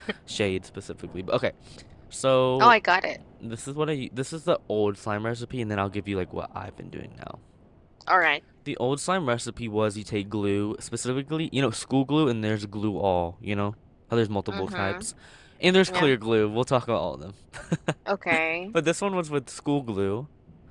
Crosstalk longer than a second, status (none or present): none